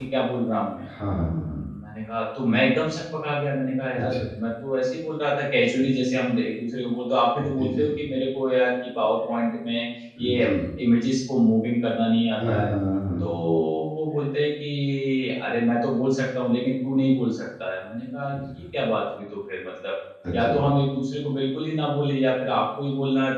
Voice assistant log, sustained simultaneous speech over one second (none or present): none